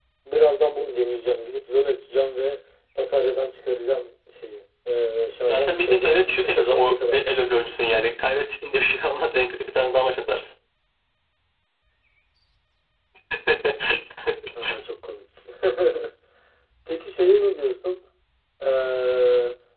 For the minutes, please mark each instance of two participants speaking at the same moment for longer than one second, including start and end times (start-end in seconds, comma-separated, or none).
5.5-7.6